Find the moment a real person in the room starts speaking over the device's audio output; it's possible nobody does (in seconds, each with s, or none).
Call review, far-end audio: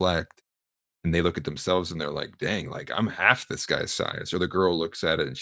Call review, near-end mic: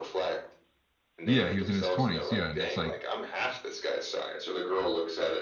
1.2 s